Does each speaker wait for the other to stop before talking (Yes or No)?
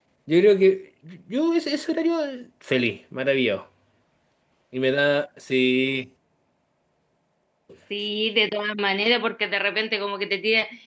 Yes